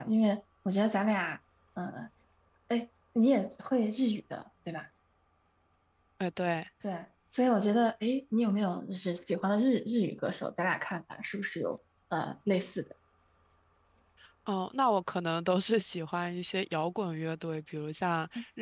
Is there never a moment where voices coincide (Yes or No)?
Yes